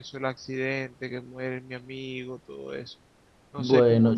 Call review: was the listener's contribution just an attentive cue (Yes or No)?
No